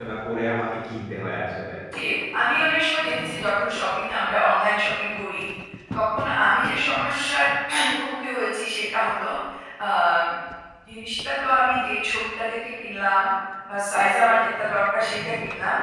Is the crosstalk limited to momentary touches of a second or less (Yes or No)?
Yes